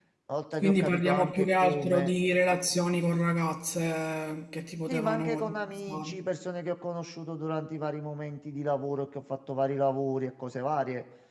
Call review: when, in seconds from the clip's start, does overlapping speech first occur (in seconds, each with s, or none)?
0.6 s